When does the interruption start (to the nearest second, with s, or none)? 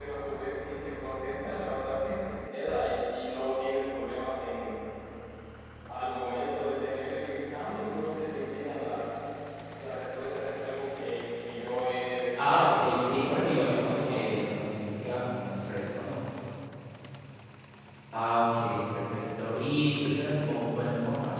12 s